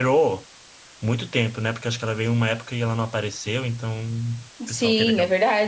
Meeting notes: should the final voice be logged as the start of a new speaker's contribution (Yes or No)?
Yes